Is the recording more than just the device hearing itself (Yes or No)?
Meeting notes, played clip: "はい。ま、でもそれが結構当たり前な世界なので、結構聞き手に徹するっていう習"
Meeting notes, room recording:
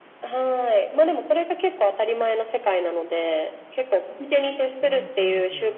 Yes